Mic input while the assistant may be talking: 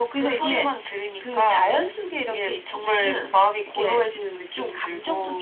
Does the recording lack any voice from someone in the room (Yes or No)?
Yes